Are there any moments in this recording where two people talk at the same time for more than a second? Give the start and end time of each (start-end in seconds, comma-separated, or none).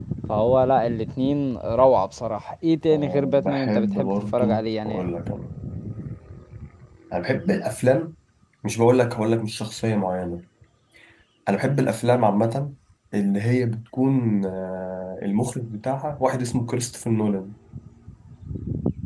2.9-5.1